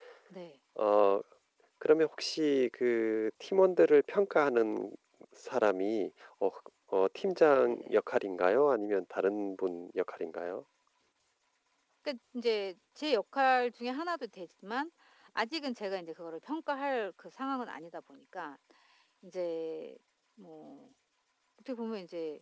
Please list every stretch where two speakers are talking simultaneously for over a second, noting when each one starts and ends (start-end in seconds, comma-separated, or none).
none